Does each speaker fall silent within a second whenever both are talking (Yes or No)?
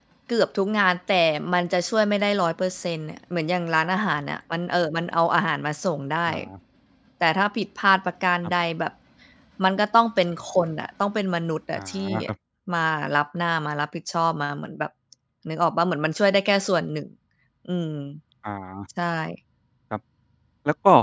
Yes